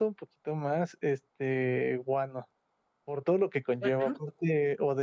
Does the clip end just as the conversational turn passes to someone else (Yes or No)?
No